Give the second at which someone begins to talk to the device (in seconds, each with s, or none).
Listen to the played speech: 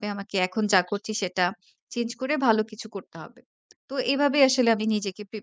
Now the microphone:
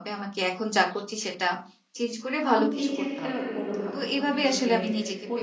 2.5 s